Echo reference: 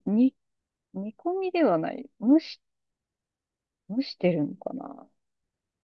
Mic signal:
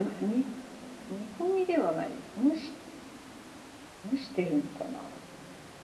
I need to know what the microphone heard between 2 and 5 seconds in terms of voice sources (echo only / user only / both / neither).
echo only